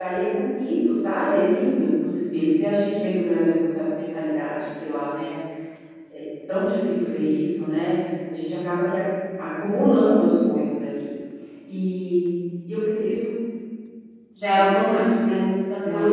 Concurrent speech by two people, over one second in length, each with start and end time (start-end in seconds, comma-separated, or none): none